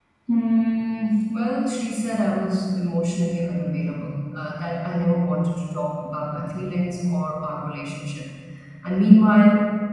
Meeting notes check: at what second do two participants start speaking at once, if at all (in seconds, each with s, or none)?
none